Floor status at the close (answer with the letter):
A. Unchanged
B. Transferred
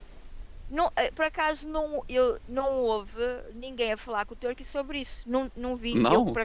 A